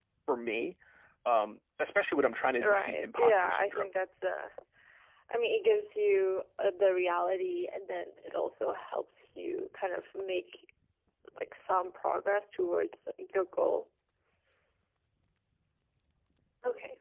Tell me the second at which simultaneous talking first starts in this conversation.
2.6 s

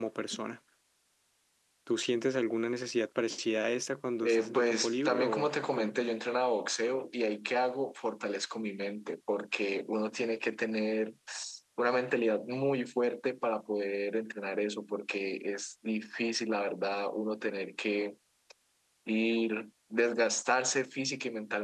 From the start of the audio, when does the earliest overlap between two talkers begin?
4.2 s

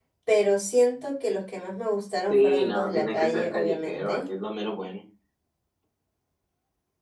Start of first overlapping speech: 2.3 s

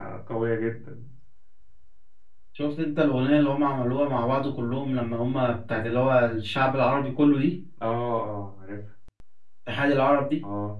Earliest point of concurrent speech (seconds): none

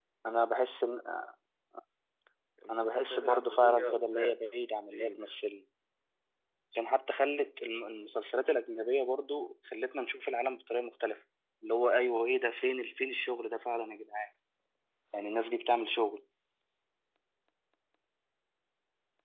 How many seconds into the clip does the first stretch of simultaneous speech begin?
2.7 s

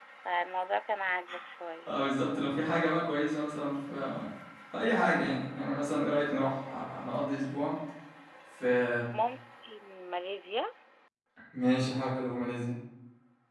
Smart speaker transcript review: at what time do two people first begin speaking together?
none

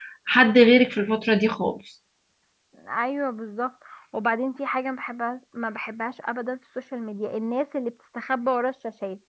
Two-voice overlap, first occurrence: none

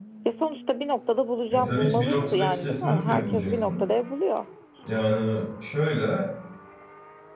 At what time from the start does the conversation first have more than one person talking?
1.5 s

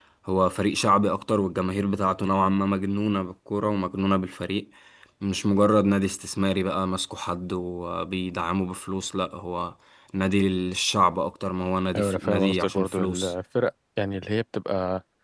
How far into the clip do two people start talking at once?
11.9 s

